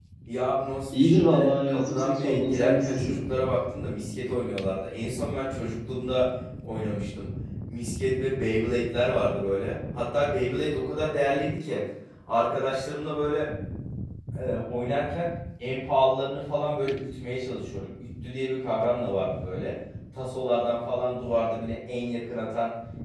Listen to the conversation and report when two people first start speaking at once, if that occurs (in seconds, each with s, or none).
0.9 s